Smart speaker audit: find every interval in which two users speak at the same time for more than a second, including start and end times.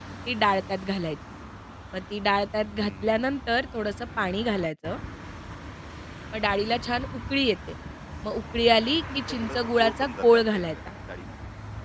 9.1-10.6

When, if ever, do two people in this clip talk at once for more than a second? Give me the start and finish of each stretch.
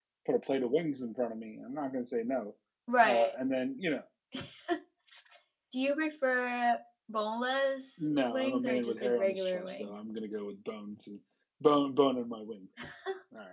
8.0-10.1

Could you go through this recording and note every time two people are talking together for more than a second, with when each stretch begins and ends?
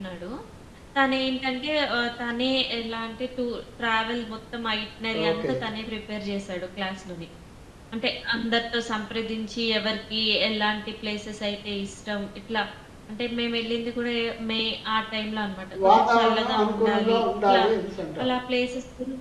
15.8-17.6

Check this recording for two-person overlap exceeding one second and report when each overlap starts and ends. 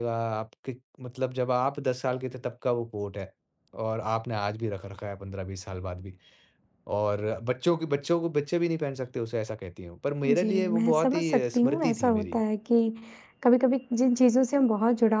10.2-12.4

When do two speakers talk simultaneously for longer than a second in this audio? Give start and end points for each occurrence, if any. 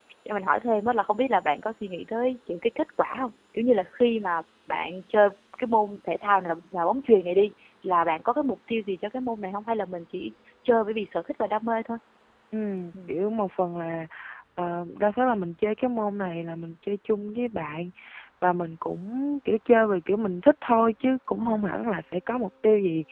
none

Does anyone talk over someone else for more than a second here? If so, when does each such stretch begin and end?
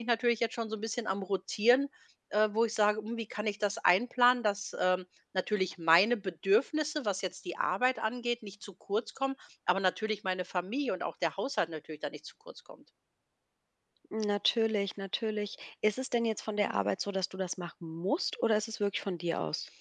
none

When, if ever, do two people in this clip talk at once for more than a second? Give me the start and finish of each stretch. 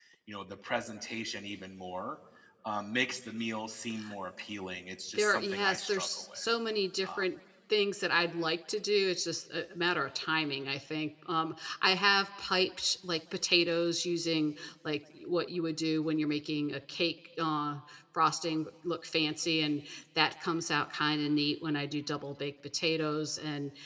5.2-6.5

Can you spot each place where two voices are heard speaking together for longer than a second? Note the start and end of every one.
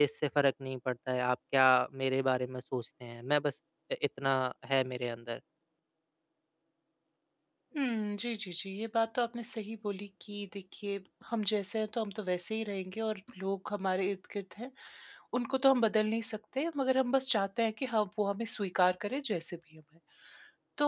none

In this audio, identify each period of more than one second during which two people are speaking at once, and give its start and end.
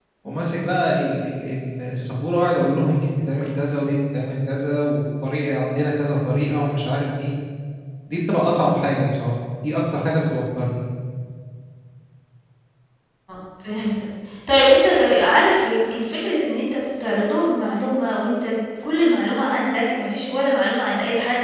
none

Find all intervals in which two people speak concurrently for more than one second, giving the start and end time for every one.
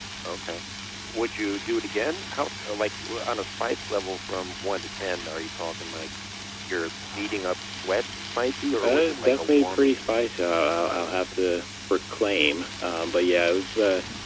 8.8-10.0

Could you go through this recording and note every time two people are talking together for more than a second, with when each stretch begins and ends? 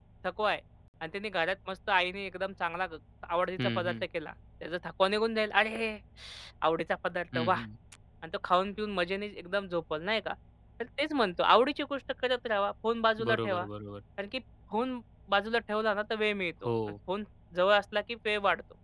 none

